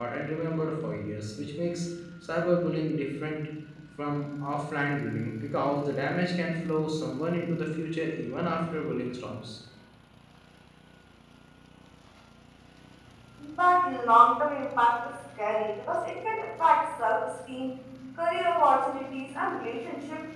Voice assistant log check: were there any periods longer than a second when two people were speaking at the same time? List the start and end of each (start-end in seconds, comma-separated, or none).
none